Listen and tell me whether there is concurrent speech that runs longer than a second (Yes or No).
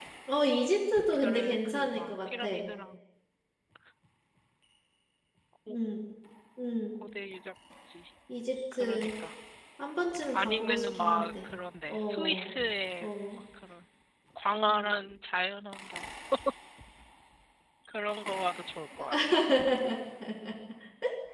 Yes